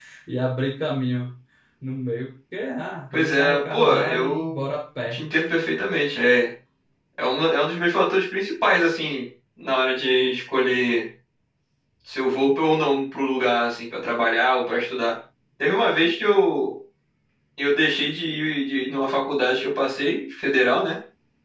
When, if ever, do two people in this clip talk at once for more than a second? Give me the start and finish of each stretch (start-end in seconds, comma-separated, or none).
3.1-4.6